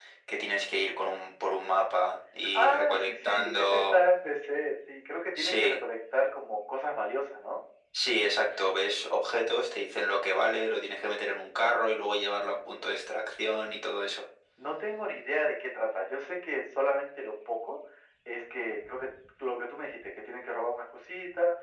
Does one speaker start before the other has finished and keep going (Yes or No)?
Yes